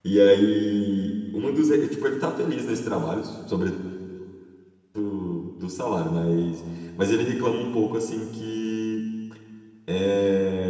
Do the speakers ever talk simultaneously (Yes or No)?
No